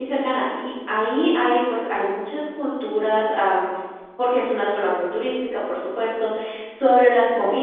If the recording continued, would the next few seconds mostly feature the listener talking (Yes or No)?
No